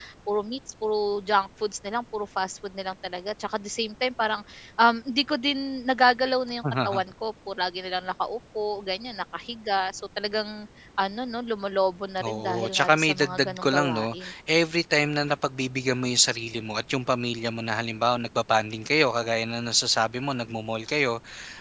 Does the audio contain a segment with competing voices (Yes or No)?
Yes